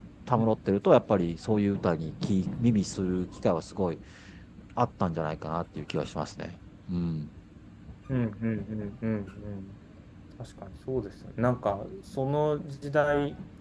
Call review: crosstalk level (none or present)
none